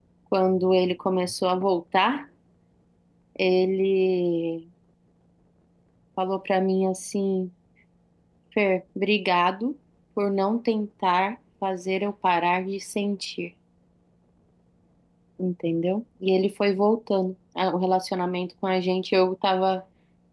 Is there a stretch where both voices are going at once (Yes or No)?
No